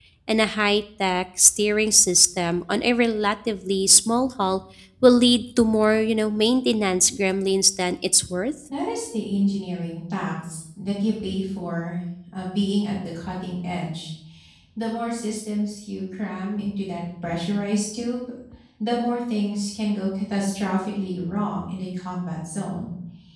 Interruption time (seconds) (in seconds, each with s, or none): none